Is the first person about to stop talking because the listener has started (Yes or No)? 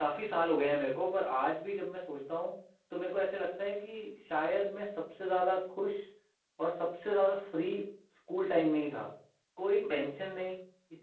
No